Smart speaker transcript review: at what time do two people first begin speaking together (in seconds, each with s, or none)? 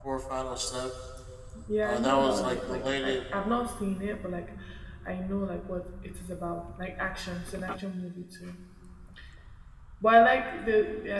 1.8 s